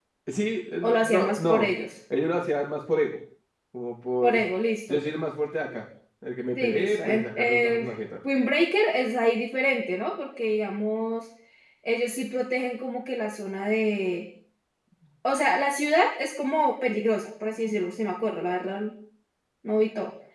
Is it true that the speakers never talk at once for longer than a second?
No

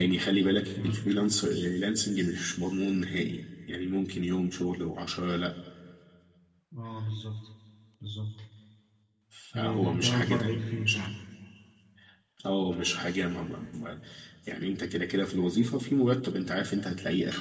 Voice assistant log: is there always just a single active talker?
No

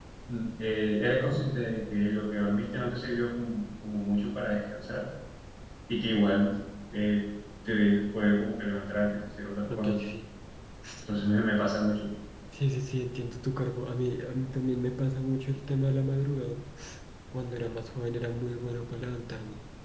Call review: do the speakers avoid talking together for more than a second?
Yes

